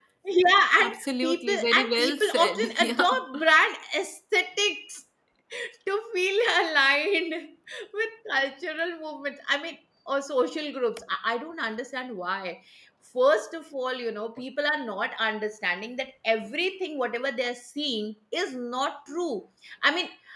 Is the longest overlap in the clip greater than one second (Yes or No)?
Yes